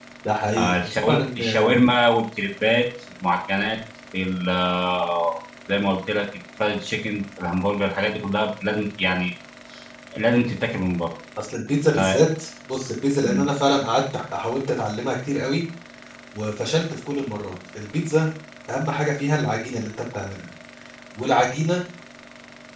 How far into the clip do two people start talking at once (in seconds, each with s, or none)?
0.6 s